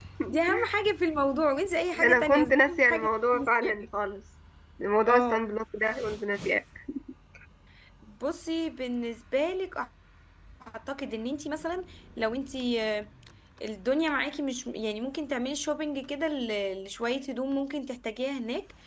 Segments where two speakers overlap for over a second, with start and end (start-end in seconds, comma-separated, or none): 1.9-3.7